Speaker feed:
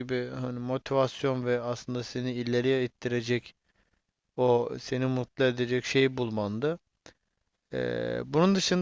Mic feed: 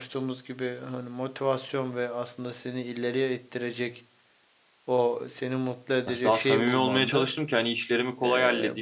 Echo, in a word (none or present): present